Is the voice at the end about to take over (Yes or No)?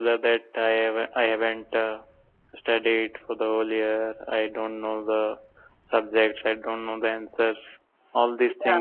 No